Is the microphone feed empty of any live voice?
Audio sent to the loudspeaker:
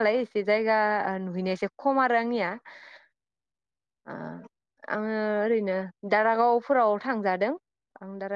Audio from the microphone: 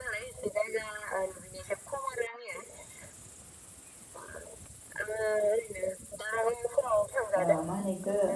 No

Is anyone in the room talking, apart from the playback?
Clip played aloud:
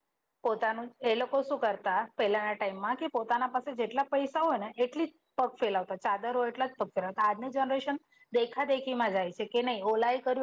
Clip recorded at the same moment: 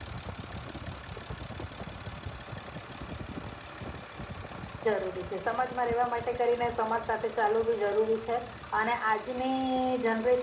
Yes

